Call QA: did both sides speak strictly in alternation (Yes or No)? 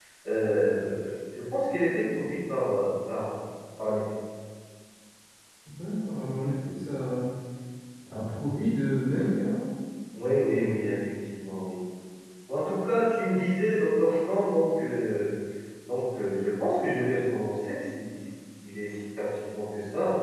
Yes